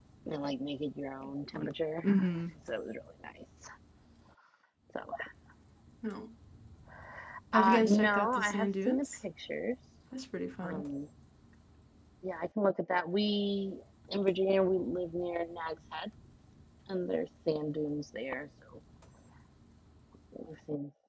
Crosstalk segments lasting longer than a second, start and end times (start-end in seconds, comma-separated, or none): 7.5-9.1